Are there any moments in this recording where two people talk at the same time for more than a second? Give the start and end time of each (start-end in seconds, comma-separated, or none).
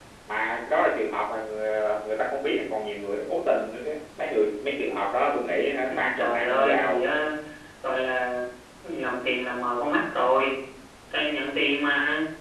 5.9-7.1